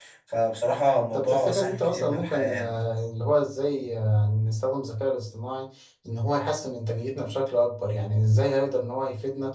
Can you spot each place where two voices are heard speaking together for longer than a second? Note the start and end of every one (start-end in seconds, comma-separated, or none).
1.1-2.7